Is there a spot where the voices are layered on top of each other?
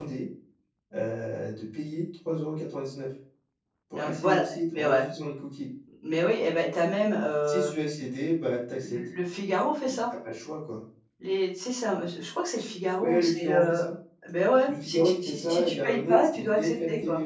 Yes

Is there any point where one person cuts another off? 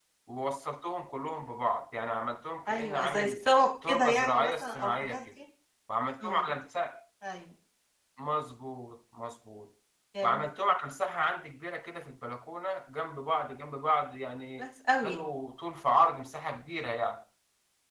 Yes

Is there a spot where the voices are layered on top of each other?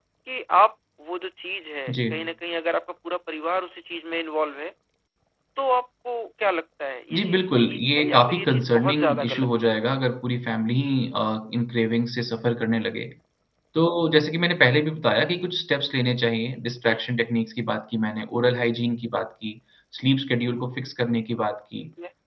Yes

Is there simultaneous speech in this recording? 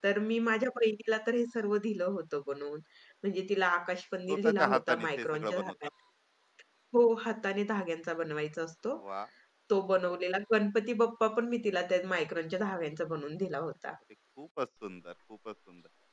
Yes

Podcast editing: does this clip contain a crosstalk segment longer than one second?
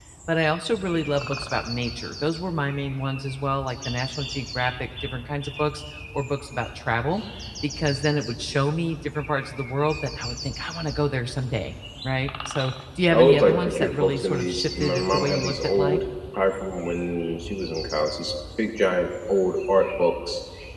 Yes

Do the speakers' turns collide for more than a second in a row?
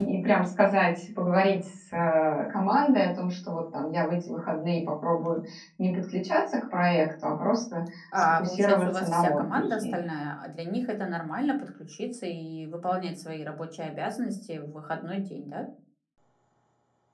Yes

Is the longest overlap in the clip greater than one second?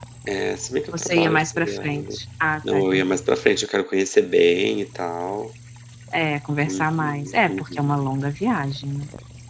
Yes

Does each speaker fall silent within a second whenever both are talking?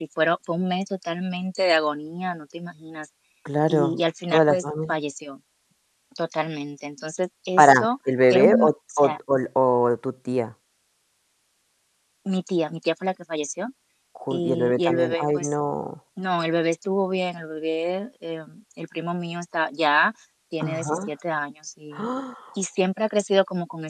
No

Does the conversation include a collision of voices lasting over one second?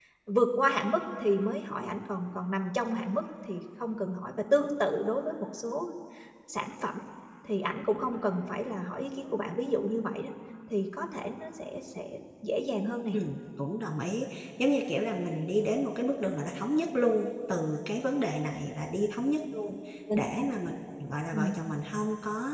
No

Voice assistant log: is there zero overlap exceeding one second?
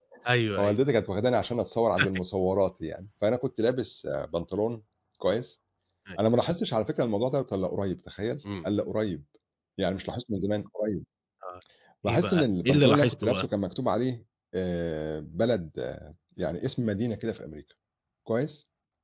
No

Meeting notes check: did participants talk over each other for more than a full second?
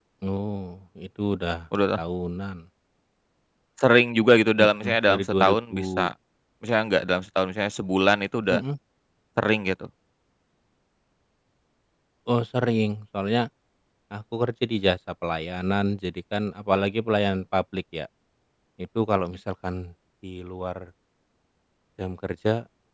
Yes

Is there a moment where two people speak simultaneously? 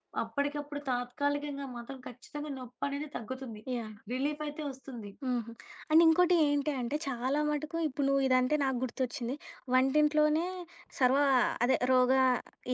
No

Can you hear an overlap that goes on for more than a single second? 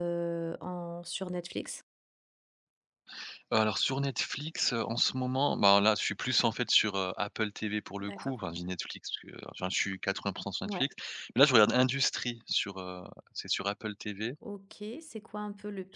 No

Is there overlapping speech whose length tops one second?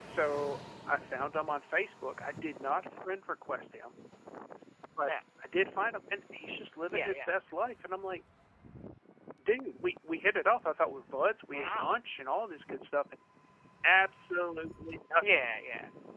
No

